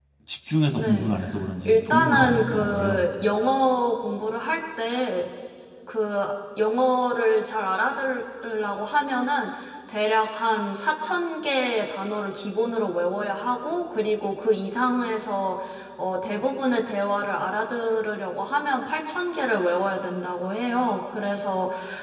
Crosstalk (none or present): present